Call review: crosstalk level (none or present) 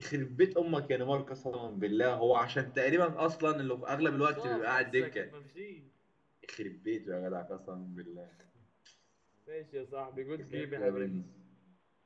present